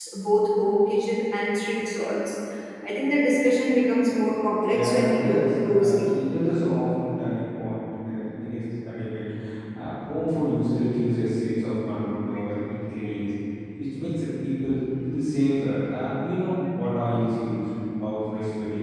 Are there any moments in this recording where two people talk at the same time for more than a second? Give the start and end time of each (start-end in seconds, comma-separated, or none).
4.7-6.0